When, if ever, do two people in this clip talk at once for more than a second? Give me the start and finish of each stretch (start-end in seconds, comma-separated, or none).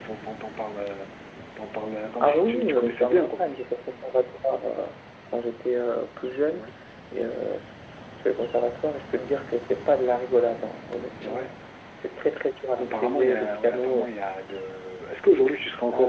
2.2-3.4, 12.8-14.1